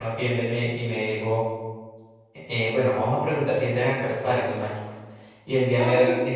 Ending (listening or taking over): listening